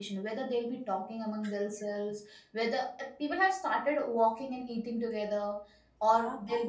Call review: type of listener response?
listening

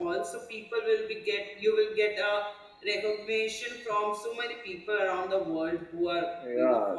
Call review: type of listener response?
taking over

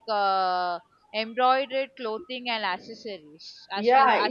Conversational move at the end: taking over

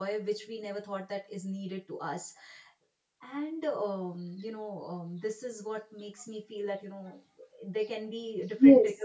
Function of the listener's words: taking over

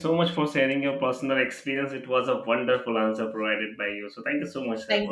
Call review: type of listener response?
taking over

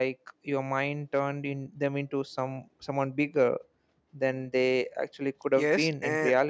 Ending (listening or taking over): taking over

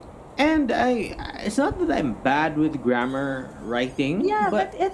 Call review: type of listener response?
taking over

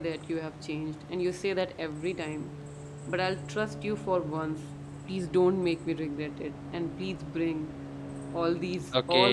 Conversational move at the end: taking over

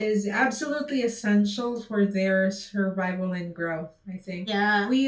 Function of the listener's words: listening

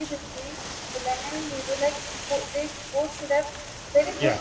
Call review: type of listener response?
listening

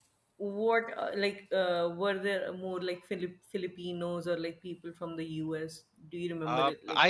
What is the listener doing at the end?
taking over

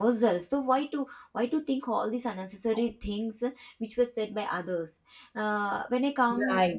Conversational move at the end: listening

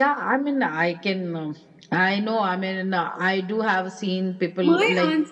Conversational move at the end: taking over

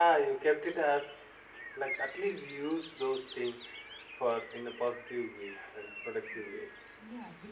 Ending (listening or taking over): taking over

